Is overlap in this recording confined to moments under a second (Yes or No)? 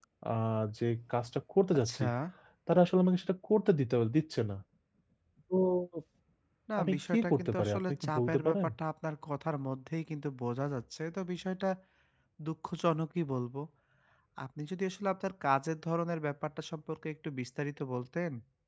No